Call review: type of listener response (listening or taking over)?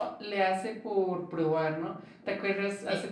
listening